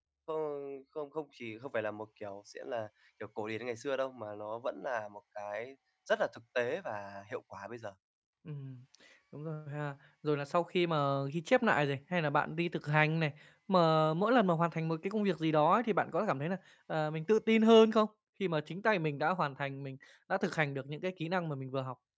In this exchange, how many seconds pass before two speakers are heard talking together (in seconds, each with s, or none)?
none